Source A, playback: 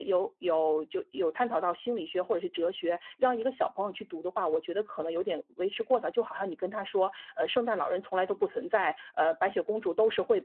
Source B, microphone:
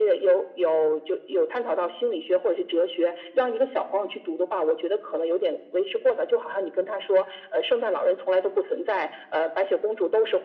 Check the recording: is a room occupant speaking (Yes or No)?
No